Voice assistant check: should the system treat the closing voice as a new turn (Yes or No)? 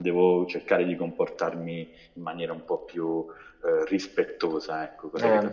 Yes